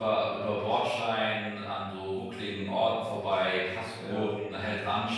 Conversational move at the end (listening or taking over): listening